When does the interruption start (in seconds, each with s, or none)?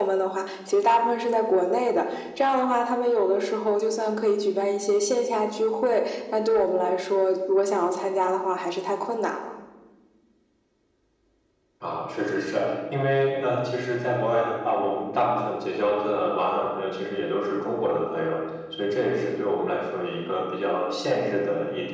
none